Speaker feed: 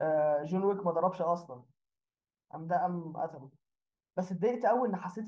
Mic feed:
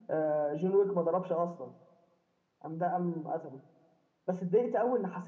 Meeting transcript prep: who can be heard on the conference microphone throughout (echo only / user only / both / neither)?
echo only